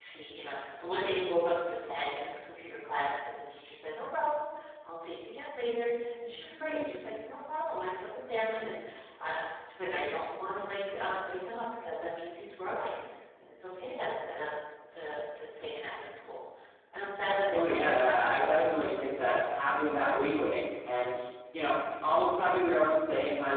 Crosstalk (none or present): present